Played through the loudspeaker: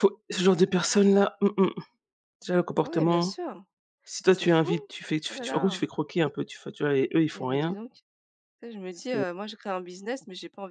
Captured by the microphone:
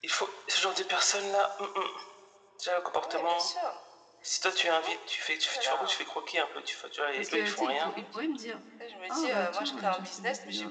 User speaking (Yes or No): Yes